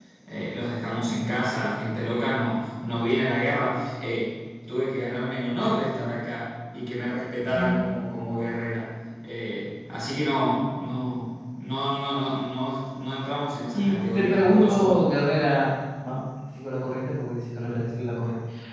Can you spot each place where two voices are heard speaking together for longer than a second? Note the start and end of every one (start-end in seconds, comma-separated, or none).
13.7-15.0